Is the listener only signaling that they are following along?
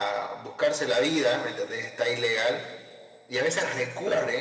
Yes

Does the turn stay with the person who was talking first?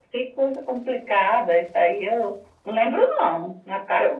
Yes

